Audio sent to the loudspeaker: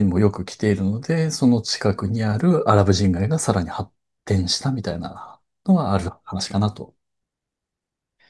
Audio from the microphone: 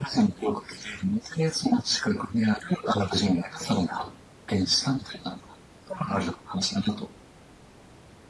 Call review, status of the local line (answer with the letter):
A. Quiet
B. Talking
A